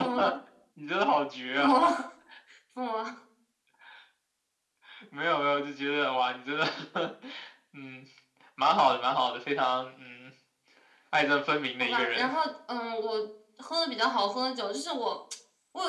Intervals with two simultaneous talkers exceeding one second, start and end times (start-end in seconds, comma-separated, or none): none